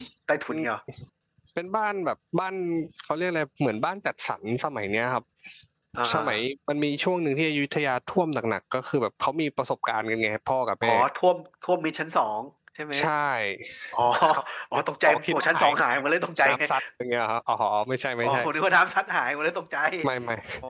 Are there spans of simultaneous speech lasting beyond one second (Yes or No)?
Yes